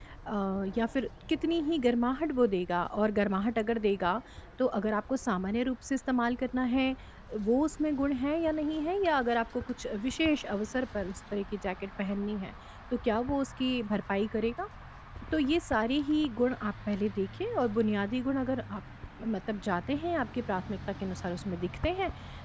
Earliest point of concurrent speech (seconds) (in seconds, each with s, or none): none